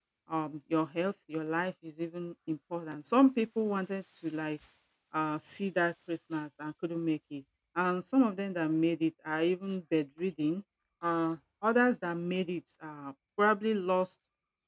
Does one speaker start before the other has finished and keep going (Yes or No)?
No